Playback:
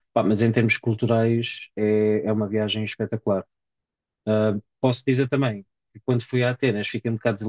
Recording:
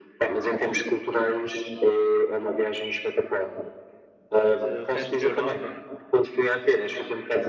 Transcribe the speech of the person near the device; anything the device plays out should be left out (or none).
de resto da Europa,